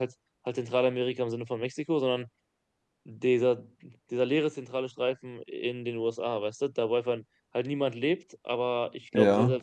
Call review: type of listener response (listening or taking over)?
listening